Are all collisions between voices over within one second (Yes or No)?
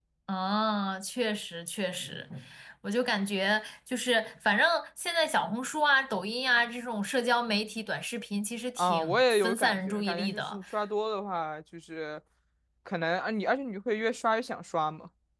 No